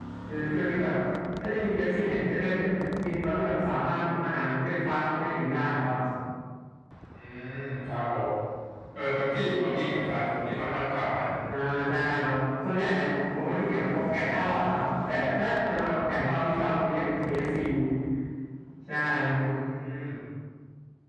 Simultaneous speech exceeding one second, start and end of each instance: none

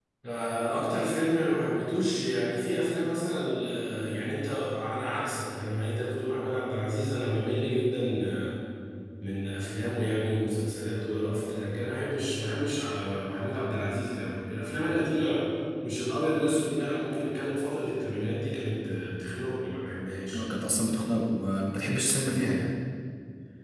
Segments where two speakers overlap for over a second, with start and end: none

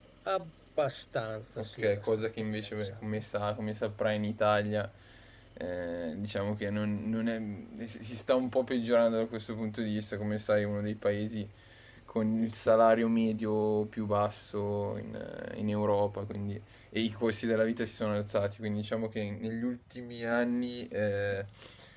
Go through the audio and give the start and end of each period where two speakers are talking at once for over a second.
1.6-3.0

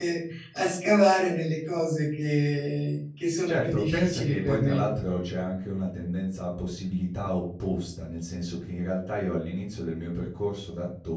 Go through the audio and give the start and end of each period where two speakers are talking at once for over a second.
3.5-4.8

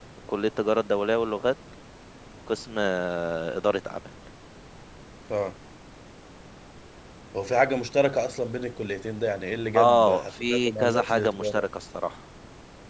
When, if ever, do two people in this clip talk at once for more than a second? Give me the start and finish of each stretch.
9.8-11.6

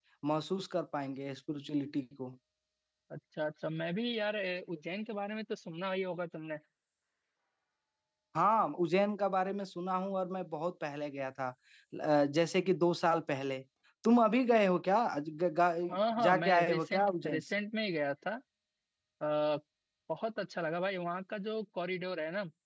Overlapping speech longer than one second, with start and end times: 16.2-17.4

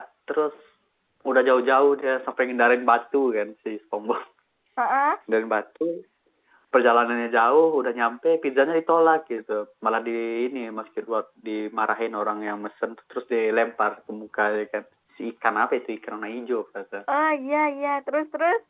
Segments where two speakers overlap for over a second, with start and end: none

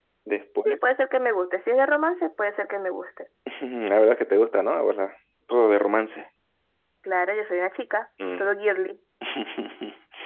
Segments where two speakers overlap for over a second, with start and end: none

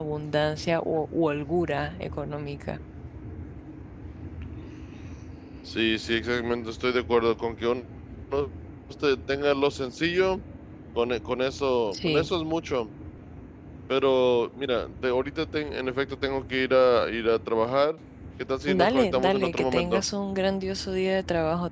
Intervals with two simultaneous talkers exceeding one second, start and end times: 18.7-20.0

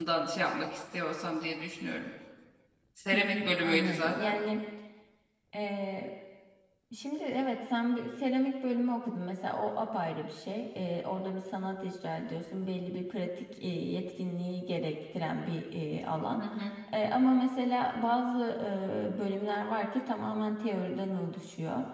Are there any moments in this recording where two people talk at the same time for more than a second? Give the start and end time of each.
3.1-4.3

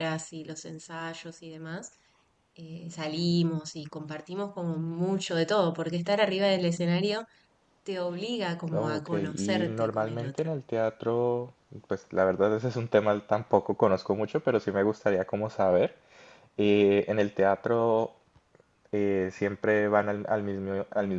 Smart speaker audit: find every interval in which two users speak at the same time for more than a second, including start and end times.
8.7-10.5

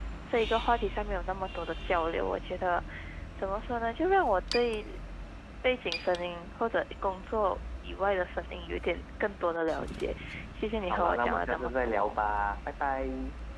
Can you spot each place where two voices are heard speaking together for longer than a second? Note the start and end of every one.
10.9-12.2

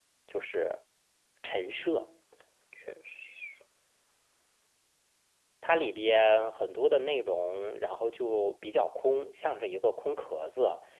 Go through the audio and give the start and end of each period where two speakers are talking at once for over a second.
none

